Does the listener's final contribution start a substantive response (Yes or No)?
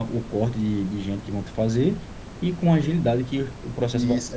Yes